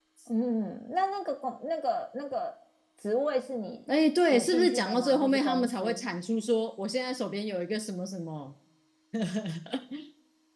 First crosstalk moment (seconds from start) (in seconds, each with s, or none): 4.3 s